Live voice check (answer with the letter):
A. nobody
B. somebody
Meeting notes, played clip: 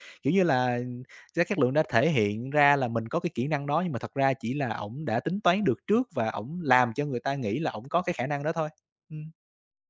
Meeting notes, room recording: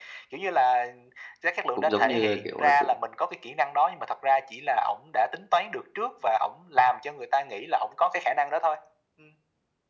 B